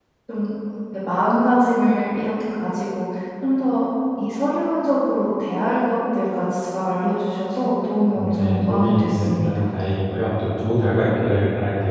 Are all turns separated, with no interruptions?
No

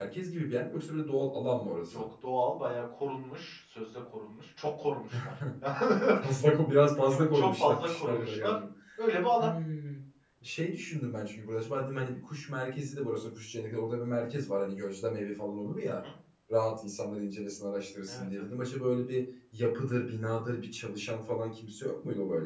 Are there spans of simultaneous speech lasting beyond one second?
Yes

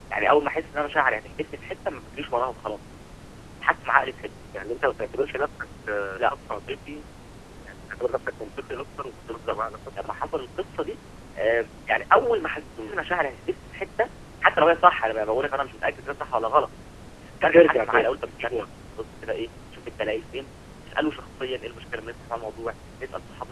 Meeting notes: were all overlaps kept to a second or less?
No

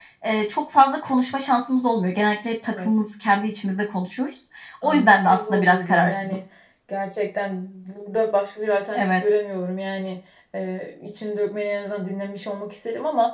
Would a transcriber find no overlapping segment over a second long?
No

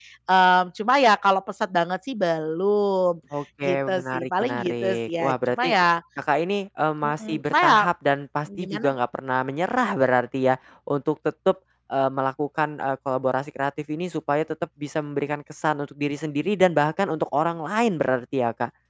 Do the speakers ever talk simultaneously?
Yes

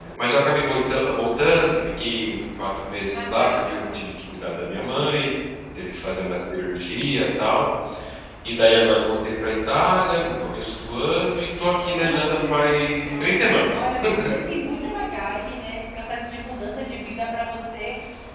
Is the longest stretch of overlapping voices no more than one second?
No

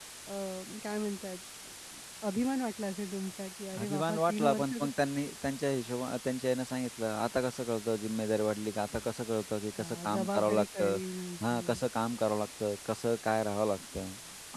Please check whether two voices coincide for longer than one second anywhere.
Yes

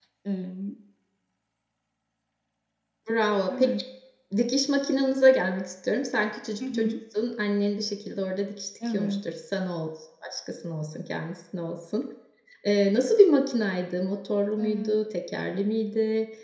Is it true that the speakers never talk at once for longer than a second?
Yes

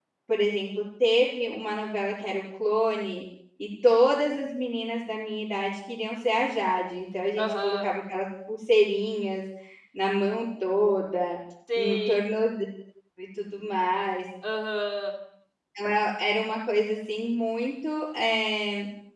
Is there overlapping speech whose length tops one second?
No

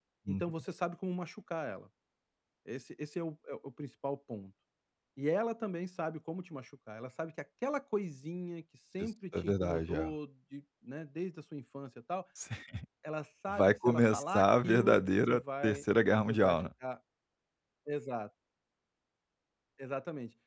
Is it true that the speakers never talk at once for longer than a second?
No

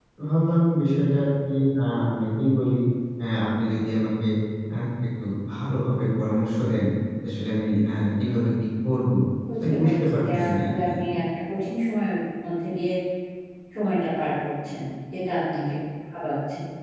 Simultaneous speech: Yes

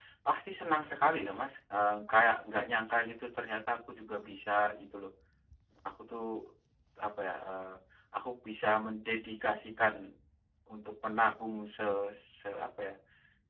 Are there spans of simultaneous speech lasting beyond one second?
No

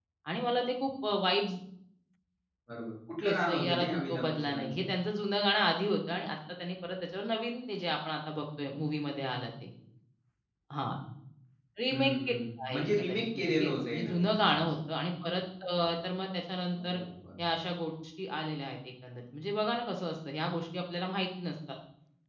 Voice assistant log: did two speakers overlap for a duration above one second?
Yes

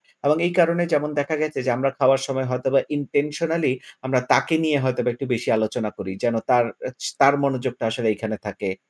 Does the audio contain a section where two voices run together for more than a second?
No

